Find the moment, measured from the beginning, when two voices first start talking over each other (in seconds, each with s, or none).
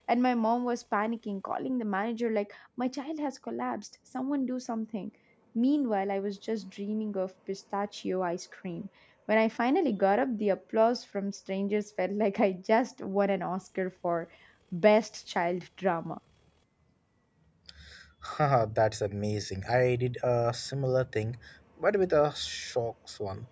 none